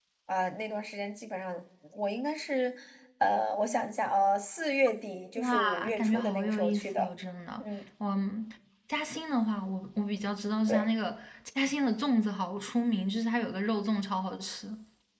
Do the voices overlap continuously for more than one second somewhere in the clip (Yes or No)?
Yes